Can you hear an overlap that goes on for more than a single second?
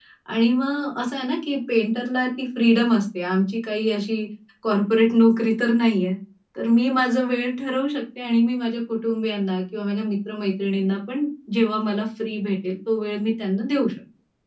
No

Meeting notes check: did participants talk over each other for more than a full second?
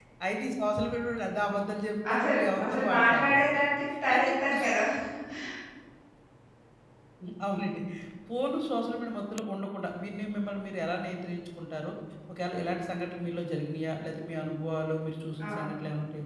Yes, from 2.1 s

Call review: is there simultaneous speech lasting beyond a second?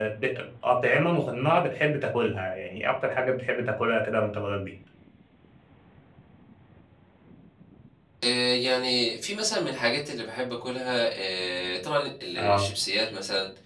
No

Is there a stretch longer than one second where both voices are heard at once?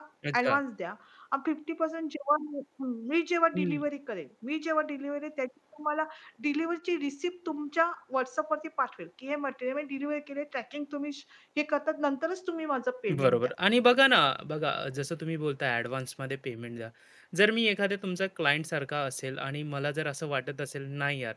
No

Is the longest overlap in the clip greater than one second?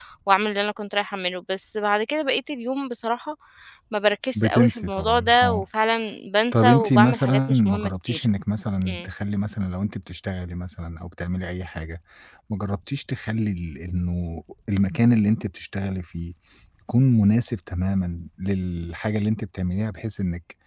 Yes, from 4.3 s

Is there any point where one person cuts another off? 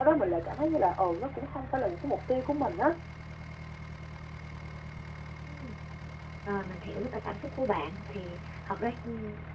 No

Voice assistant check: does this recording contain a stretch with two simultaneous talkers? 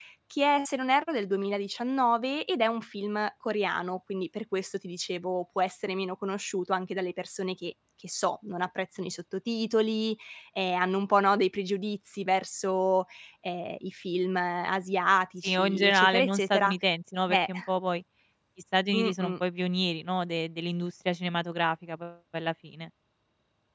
Yes, from 15.4 s

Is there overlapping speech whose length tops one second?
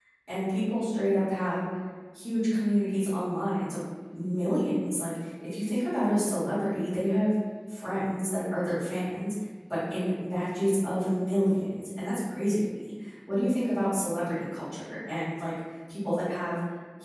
No

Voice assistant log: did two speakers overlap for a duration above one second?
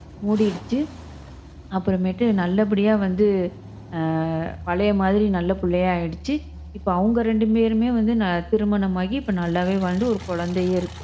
No

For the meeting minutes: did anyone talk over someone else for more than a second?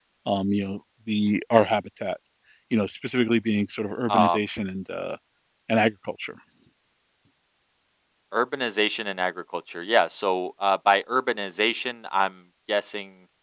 No

